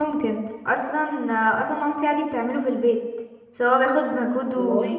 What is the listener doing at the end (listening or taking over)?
listening